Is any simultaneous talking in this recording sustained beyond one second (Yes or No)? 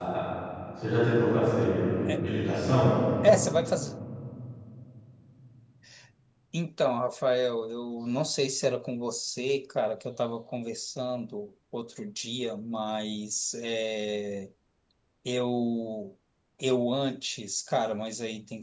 No